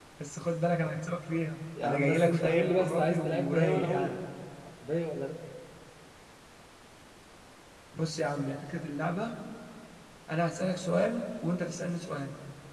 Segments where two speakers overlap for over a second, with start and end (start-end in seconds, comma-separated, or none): 1.8-4.2